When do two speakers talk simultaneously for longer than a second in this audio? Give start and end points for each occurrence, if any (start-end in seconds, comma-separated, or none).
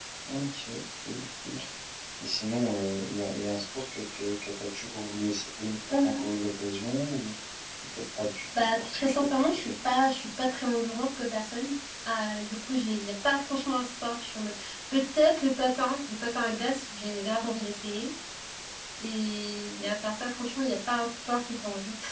8.5-9.7